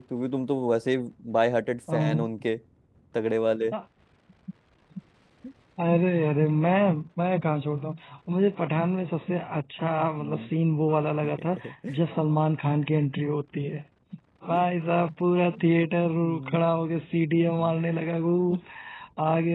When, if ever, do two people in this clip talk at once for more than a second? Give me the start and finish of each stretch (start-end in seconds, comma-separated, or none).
none